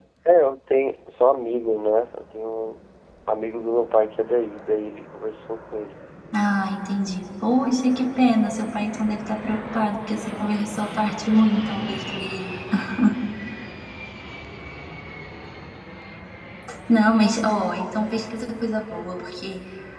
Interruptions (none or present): none